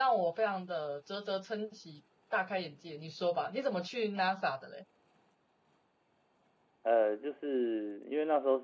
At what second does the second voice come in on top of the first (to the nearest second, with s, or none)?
none